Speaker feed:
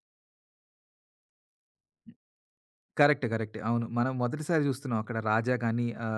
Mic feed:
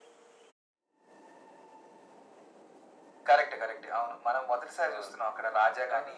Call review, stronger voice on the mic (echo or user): echo